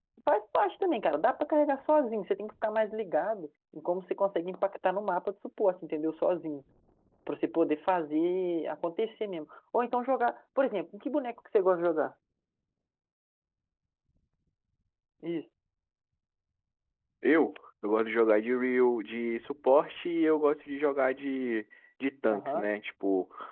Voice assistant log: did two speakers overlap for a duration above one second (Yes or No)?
No